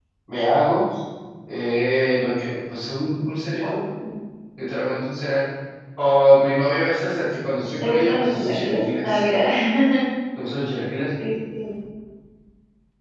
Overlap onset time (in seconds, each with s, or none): 7.6 s